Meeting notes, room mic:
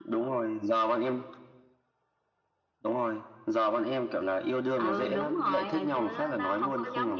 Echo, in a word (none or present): present